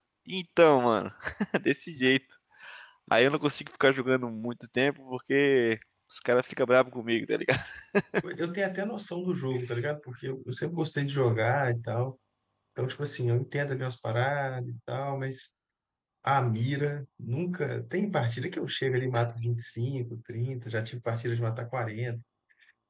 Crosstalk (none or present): none